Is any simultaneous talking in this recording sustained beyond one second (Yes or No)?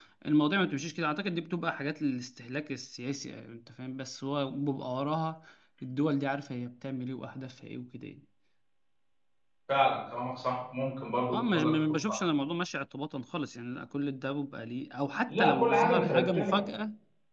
Yes